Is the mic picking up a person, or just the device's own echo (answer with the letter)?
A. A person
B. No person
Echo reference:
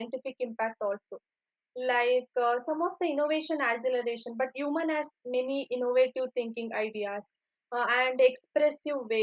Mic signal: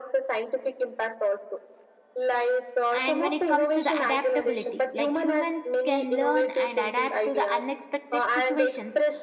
A